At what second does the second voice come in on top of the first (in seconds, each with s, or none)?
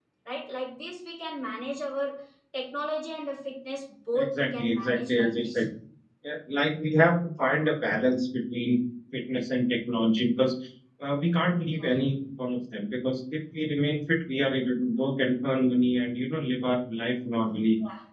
4.1 s